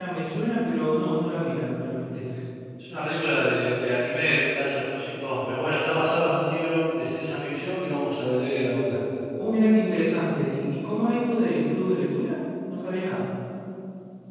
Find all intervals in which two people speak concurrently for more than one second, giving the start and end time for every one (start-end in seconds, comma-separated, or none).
none